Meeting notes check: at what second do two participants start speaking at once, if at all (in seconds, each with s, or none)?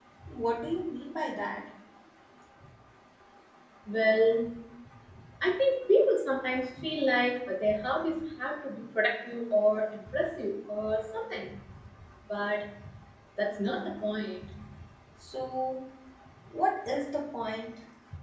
none